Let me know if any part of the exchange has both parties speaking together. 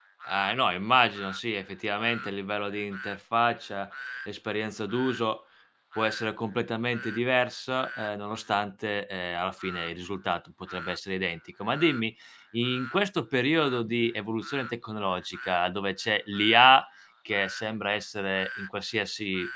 No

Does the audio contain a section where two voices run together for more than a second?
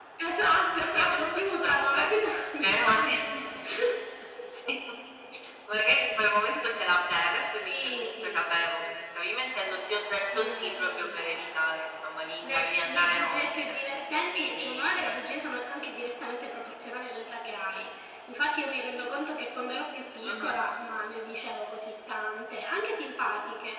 Yes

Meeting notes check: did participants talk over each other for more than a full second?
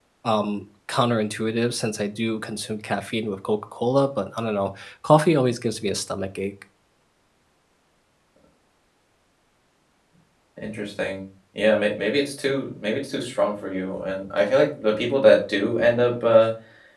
No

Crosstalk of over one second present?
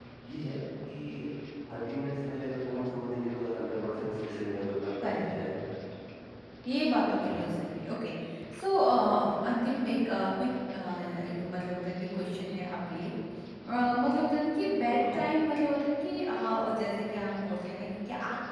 No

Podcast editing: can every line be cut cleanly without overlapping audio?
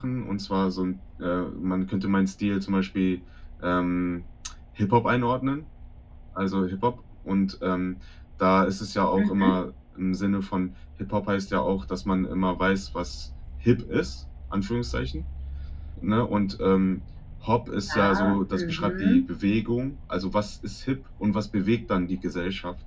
No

